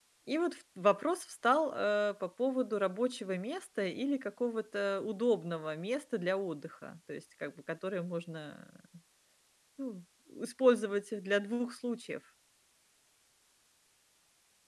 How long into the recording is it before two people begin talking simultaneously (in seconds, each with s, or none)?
none